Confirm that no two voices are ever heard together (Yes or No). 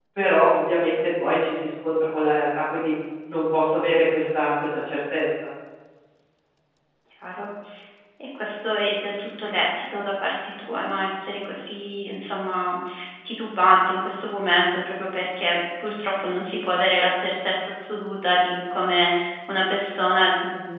Yes